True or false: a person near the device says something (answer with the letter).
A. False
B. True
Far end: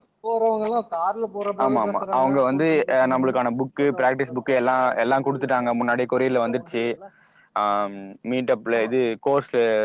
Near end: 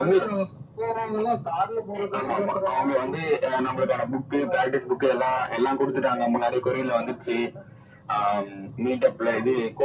A